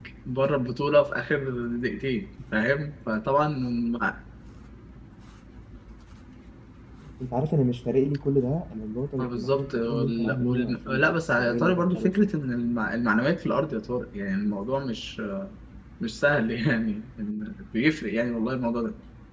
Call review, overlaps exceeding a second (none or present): present